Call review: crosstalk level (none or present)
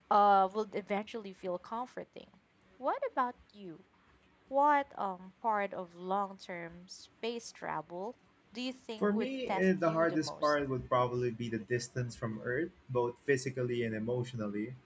present